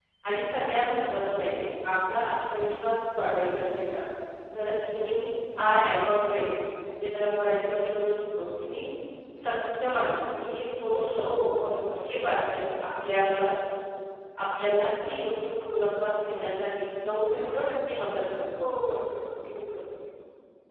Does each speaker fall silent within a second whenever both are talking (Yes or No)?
Yes